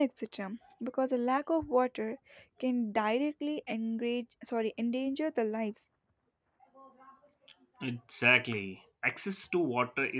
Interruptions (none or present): none